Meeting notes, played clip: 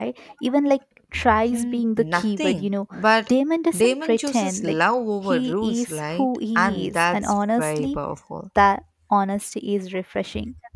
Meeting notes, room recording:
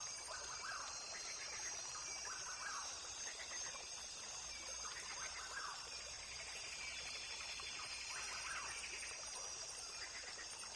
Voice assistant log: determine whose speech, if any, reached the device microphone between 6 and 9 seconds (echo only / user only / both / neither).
neither